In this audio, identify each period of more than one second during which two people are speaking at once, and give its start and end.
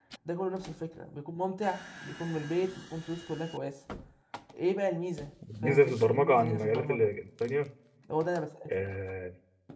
5.6-7.1

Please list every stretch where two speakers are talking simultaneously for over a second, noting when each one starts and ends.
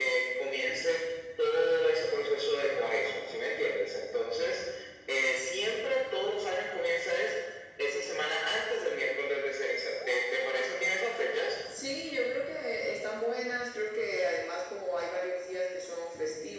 none

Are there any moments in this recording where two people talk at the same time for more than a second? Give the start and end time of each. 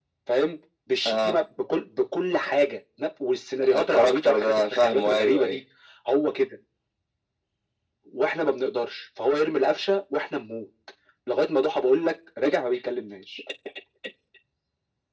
3.7-5.6

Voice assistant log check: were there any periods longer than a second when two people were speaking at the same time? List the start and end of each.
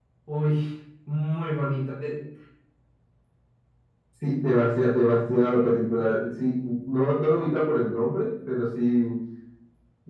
none

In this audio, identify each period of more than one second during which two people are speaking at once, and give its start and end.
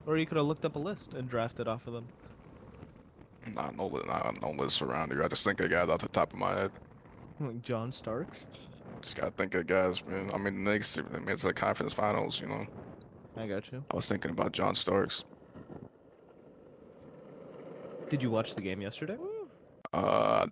none

